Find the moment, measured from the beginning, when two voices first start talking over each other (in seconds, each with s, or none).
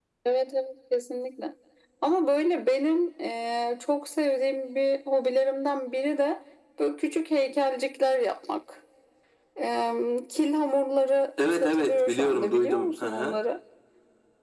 11.4 s